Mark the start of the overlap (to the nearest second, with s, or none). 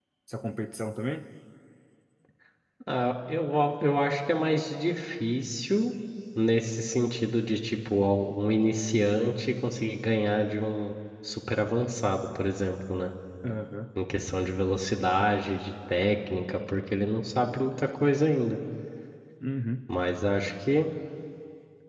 none